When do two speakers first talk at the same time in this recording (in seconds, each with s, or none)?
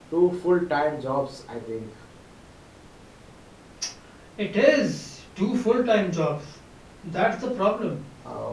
none